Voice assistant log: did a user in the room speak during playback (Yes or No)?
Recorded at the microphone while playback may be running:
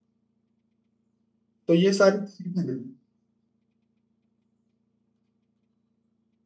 Yes